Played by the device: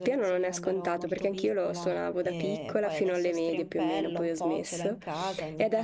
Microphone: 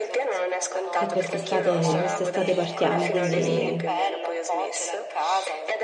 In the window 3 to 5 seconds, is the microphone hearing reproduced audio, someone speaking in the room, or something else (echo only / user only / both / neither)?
both